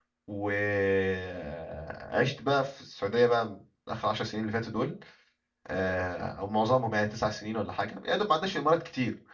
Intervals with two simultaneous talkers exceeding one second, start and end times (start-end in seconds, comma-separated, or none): none